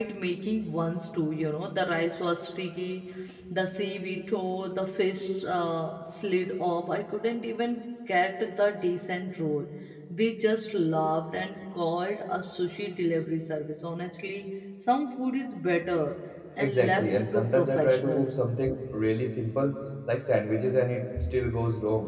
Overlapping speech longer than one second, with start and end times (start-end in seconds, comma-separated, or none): 16.6-18.3